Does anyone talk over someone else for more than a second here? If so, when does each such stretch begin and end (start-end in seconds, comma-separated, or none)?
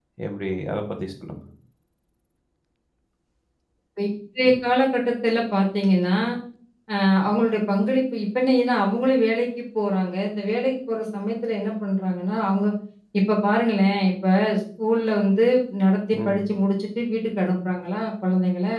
none